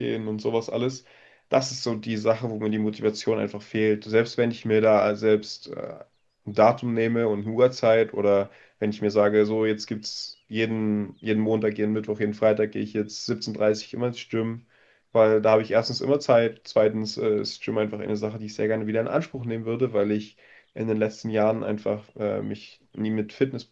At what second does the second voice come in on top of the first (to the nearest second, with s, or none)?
none